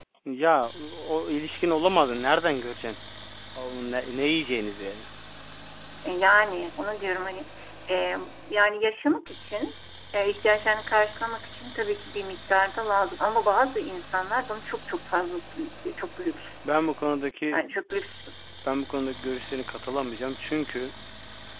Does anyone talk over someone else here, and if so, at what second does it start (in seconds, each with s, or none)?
none